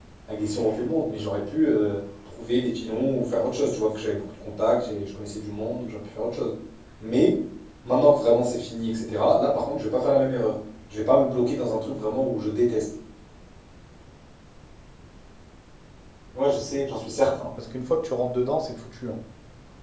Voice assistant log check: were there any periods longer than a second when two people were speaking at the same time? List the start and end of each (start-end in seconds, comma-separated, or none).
none